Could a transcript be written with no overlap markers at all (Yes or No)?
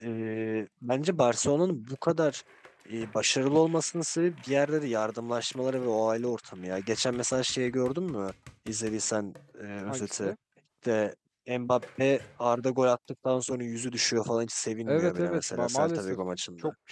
No